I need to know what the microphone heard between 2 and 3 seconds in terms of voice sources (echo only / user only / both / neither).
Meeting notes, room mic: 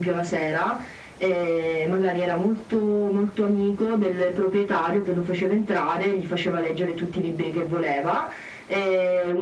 echo only